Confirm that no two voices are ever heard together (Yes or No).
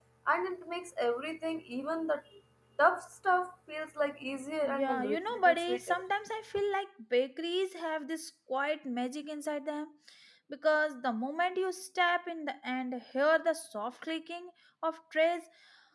No